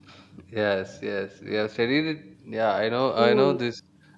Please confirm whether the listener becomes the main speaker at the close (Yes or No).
No